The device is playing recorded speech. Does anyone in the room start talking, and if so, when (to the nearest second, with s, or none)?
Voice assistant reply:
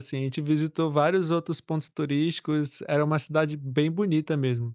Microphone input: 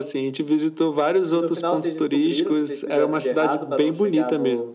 1 s